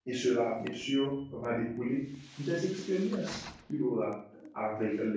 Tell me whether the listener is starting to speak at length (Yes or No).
No